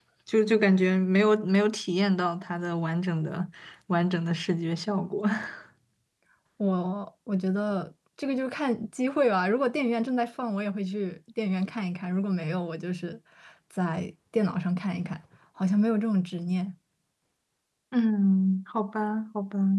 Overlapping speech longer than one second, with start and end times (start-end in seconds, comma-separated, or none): none